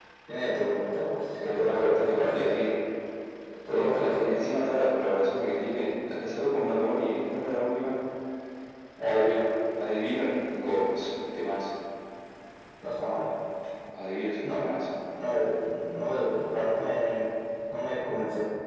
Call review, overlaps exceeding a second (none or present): present